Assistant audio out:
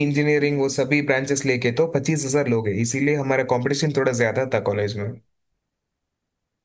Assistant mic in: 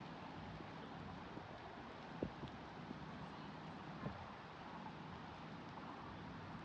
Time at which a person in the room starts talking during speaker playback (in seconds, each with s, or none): none